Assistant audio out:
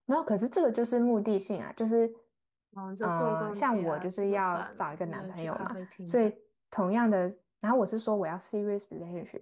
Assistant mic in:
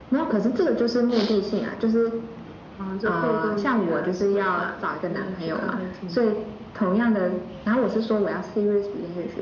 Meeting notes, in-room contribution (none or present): none